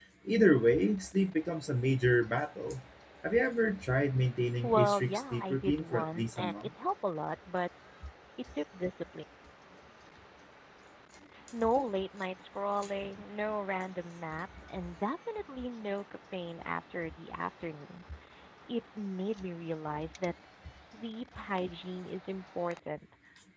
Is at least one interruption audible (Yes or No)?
Yes